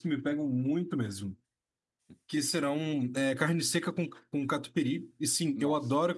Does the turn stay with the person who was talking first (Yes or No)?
Yes